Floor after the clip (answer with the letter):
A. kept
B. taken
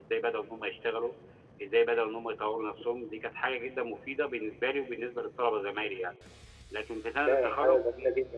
B